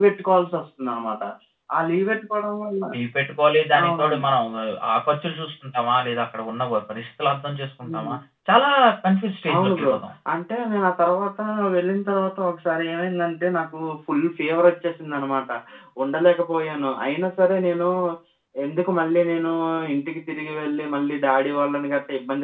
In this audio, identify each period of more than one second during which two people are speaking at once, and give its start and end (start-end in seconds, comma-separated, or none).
none